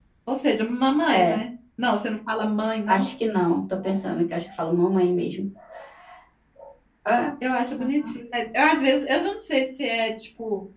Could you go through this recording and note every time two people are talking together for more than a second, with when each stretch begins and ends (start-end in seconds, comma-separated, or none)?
none